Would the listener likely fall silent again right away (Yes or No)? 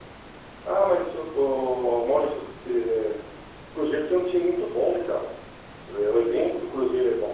Yes